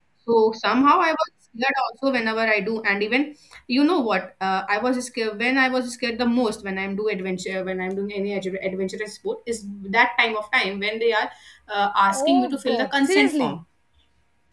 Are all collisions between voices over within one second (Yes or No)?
No